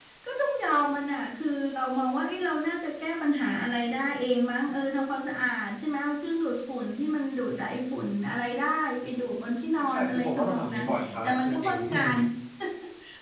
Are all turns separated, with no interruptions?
No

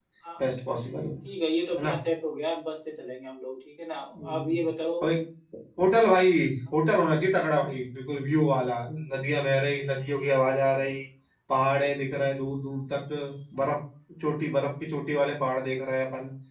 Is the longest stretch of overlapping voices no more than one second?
Yes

